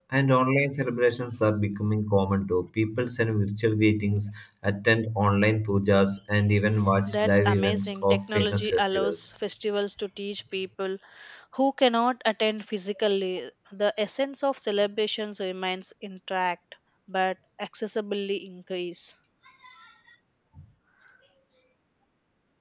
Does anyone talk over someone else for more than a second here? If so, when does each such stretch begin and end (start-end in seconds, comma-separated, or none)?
7.1-9.2